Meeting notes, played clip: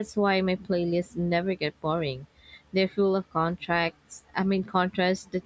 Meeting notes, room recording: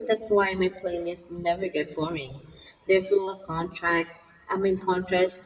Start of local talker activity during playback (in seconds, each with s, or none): none